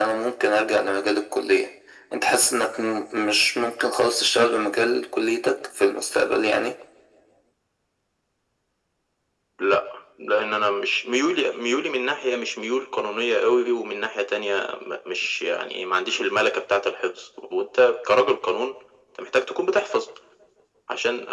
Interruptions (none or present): none